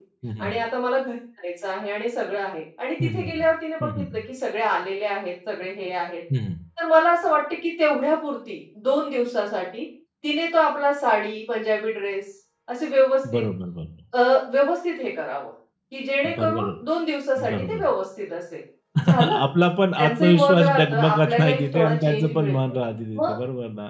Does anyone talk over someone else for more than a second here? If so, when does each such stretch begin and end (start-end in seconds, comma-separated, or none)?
20.0-22.6